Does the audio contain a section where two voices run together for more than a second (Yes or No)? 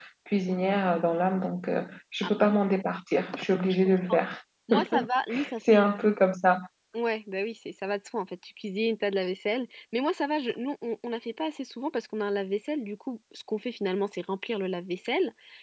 No